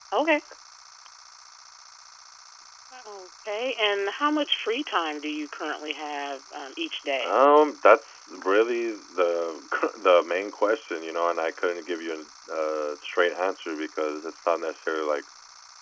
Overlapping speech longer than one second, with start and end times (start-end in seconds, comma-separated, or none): none